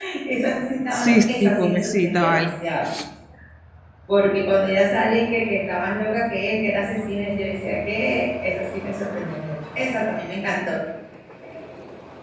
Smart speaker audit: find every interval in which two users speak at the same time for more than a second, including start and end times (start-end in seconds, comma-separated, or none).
1.0-2.5